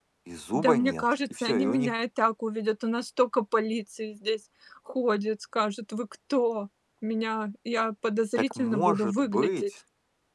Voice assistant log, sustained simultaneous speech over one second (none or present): present